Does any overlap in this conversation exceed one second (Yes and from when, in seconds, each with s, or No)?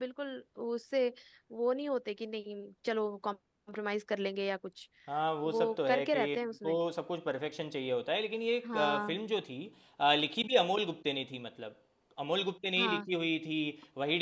Yes, from 5.4 s